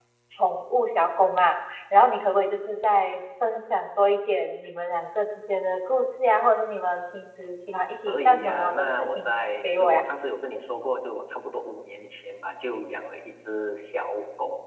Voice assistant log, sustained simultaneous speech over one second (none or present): present